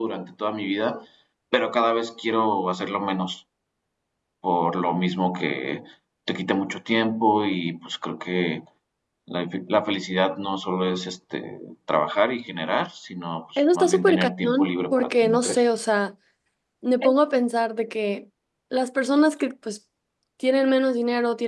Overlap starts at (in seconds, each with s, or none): 13.6 s